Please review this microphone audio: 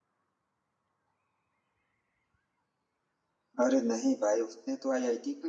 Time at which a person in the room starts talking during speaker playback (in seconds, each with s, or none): 3.6 s